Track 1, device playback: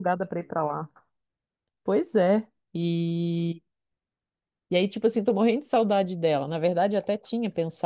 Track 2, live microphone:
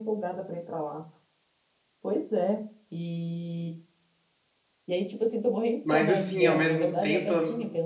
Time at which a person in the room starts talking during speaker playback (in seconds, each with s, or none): 5.8 s